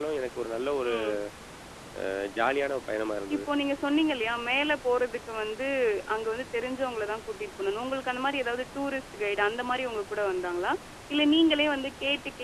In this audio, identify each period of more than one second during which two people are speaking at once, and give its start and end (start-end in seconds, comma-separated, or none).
none